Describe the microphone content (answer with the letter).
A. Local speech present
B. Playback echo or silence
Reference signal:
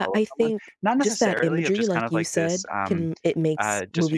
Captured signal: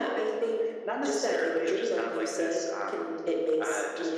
B